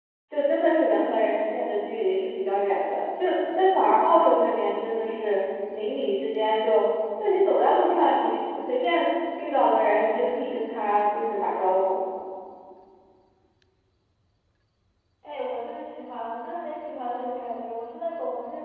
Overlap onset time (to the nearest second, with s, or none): none